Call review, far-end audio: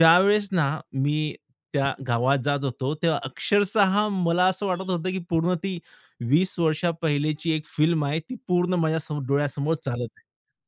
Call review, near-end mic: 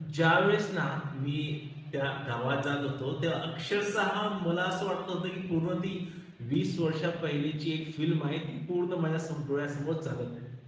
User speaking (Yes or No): No